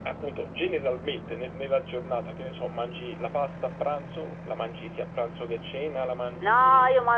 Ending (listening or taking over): taking over